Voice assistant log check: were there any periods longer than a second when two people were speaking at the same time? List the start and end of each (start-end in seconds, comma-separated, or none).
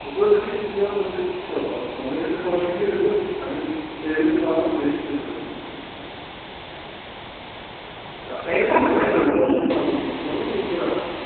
8.4-9.6